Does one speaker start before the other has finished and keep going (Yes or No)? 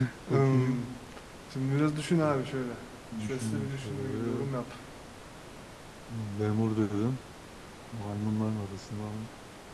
Yes